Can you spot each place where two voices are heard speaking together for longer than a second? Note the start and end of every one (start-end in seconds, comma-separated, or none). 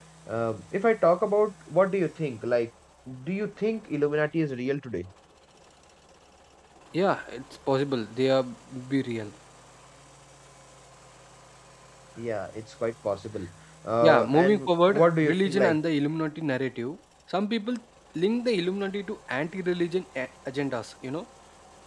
14.0-15.8